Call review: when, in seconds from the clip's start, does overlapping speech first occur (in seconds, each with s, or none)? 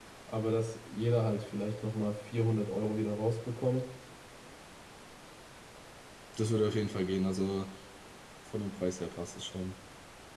none